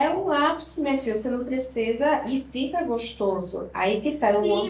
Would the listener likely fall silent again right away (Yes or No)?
No